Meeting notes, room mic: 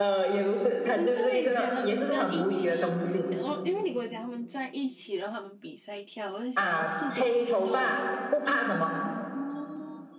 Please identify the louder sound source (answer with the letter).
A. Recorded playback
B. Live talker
A